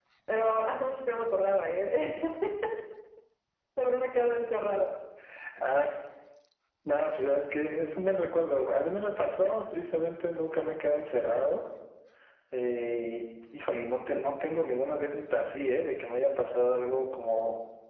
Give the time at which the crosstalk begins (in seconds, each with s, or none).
none